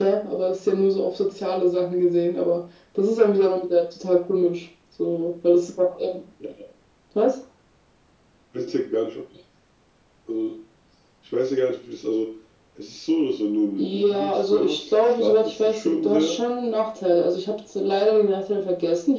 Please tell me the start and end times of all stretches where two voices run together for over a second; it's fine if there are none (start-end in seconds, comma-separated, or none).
13.8-16.4